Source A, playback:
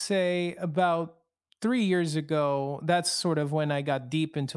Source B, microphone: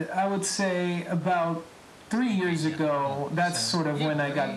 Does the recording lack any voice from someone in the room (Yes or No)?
No